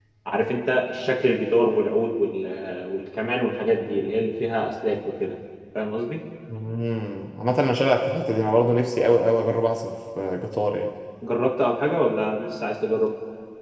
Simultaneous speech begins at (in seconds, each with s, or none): none